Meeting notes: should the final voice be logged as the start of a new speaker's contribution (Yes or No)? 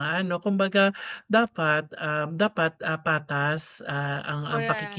No